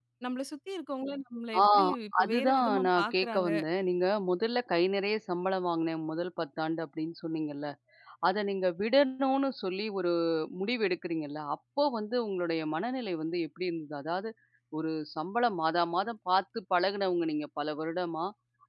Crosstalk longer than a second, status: present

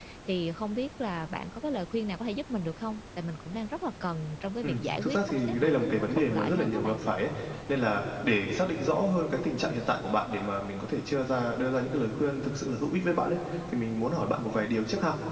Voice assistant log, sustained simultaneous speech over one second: present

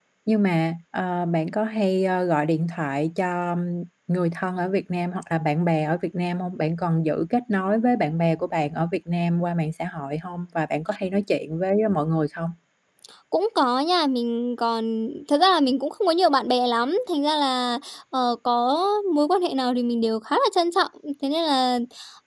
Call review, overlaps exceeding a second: none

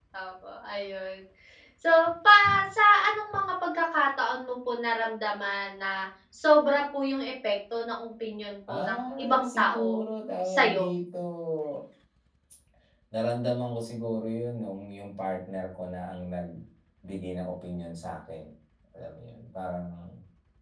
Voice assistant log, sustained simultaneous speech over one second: present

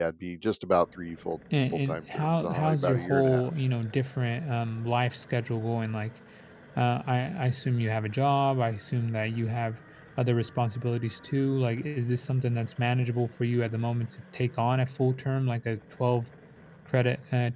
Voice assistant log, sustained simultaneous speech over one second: present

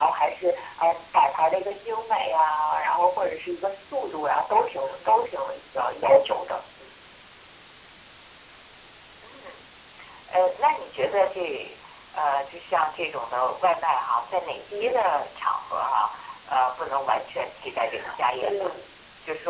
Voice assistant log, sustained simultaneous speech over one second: none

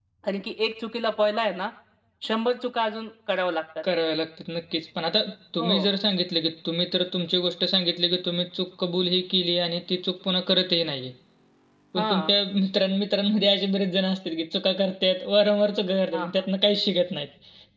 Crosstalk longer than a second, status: none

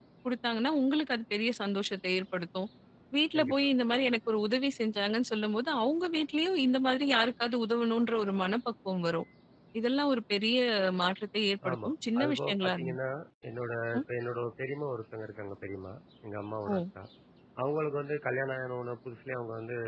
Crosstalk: present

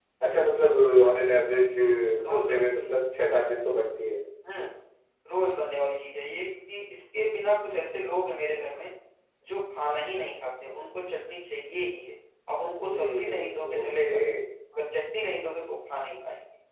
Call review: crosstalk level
present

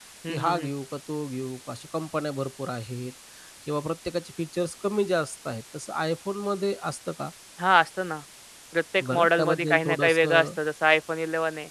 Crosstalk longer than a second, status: present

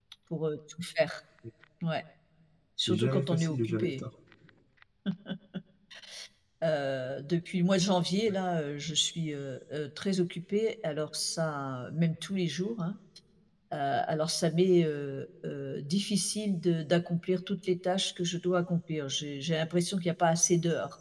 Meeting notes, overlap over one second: present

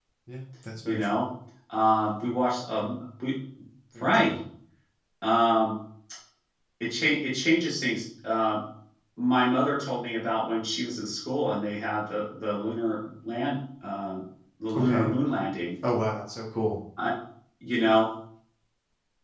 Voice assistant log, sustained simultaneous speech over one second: none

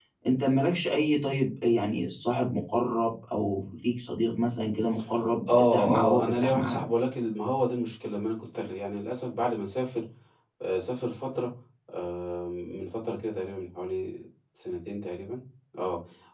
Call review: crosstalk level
present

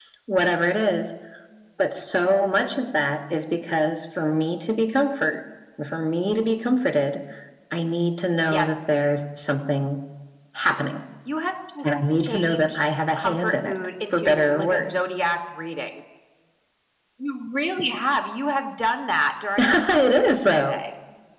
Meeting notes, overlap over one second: present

